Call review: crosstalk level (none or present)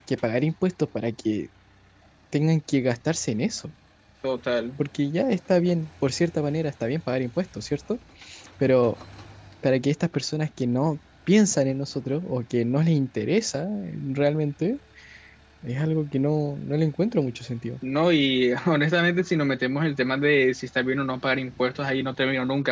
none